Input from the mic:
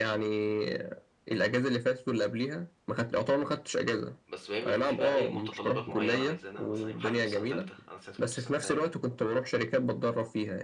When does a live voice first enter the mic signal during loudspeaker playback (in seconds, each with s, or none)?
4.3 s